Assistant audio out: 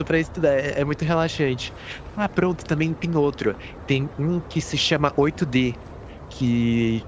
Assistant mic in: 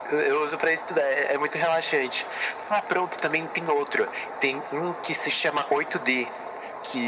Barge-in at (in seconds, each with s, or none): none